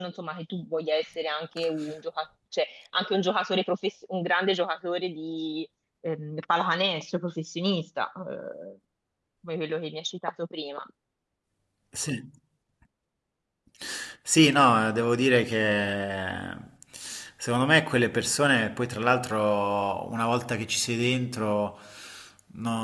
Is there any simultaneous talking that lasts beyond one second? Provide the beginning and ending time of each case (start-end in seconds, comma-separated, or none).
none